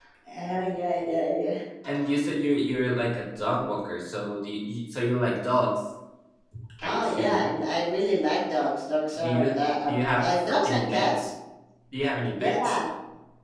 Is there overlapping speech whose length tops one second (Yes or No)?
Yes